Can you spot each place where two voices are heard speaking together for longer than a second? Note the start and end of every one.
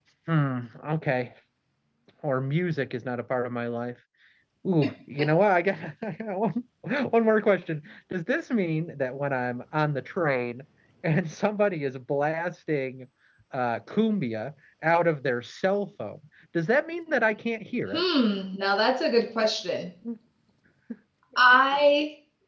none

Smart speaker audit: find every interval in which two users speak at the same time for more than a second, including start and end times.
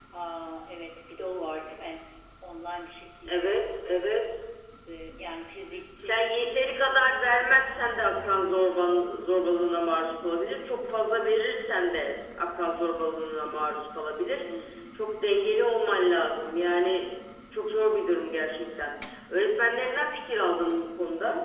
none

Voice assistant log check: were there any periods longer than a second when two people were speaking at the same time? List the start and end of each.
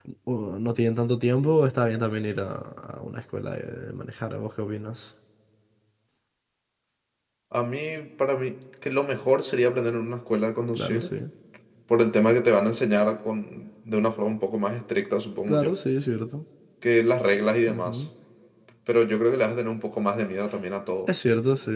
none

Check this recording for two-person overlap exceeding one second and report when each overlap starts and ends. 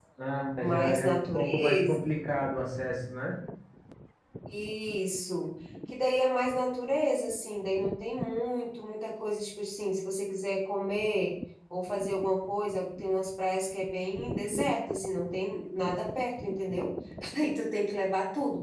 0.6-2.2

